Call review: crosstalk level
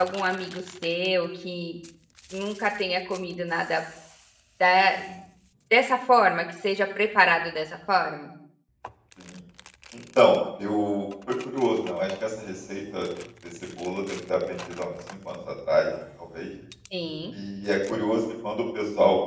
none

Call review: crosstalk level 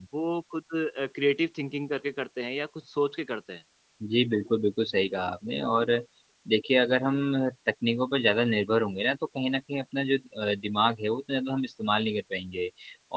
none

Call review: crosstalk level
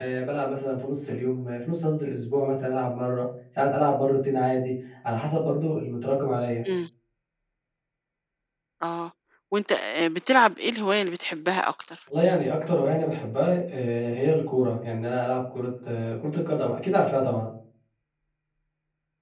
none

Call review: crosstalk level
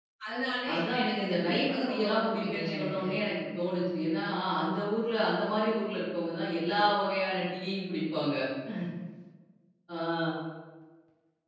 present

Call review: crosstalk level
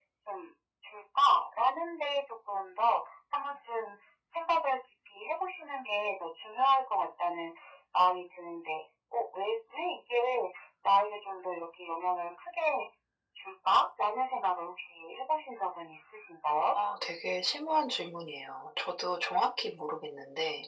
none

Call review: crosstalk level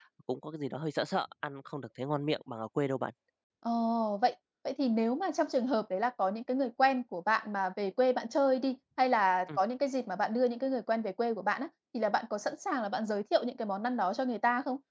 none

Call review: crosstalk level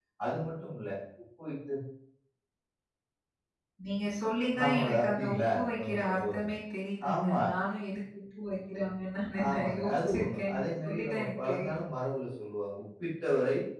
present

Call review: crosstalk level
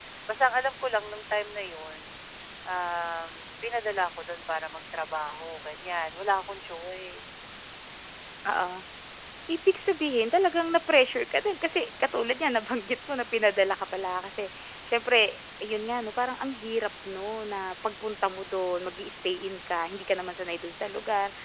none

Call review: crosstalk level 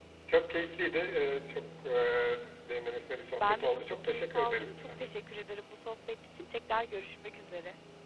present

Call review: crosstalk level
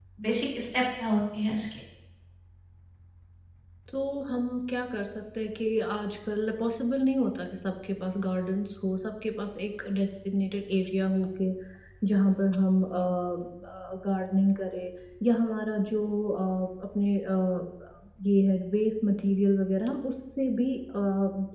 none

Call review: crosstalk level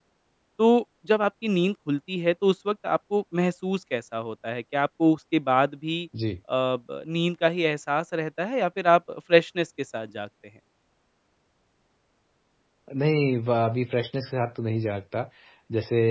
none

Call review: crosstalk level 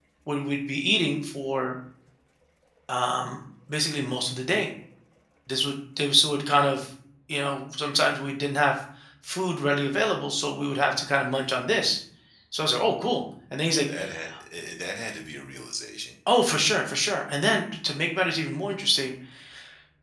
none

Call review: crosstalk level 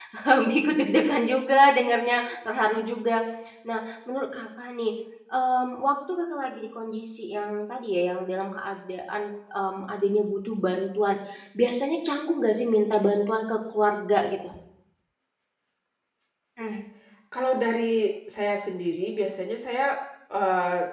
none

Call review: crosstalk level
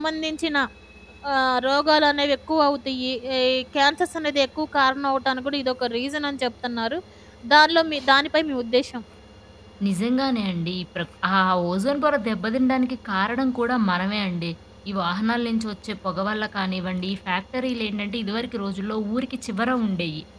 none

